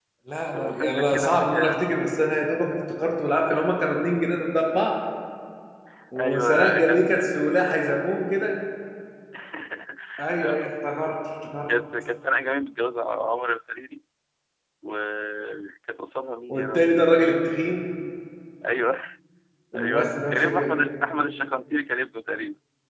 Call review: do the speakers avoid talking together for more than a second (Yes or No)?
No